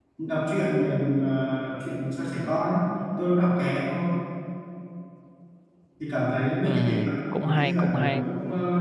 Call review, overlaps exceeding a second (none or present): present